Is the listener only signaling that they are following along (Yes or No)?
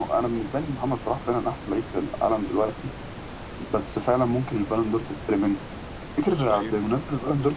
Yes